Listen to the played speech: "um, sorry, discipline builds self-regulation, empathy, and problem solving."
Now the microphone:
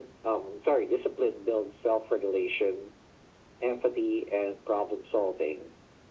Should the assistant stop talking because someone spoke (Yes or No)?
No